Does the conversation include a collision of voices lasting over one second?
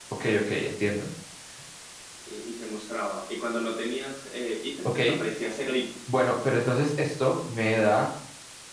No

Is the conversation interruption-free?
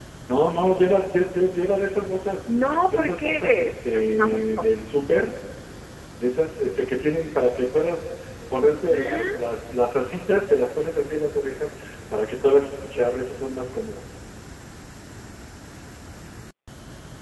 No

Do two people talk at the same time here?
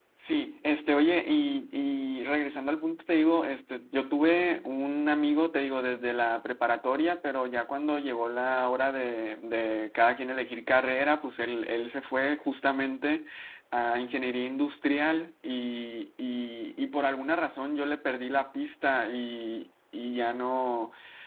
No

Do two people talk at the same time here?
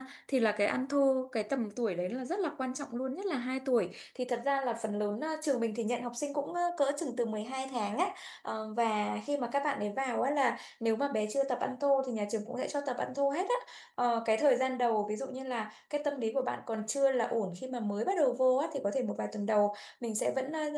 No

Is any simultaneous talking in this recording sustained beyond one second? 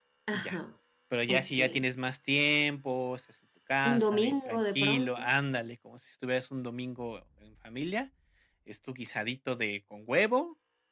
Yes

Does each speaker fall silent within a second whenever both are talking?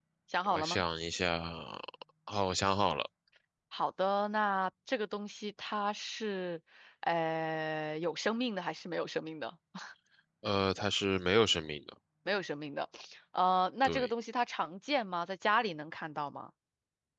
Yes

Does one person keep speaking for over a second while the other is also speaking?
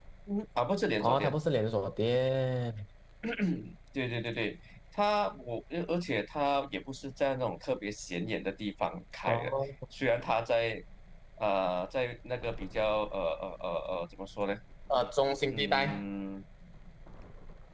No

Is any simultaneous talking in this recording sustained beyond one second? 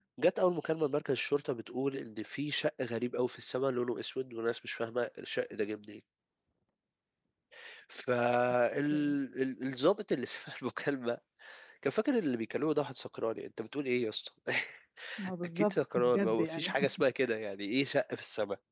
Yes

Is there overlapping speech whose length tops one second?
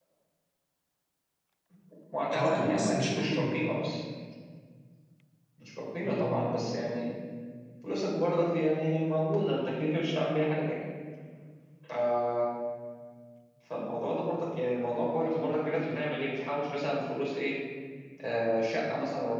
Yes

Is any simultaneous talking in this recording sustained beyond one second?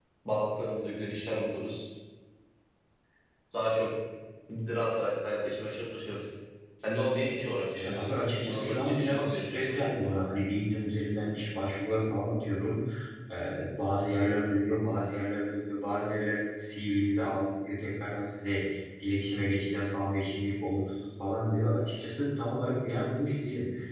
Yes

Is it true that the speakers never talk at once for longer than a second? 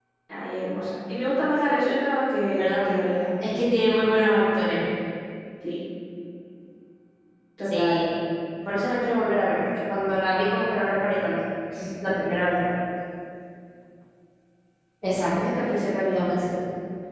Yes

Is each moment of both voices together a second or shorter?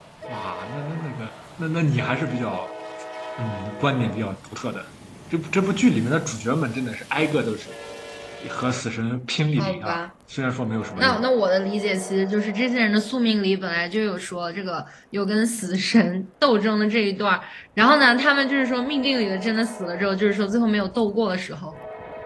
Yes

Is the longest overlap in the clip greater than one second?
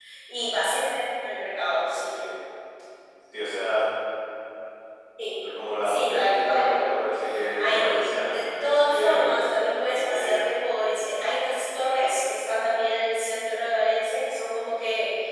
Yes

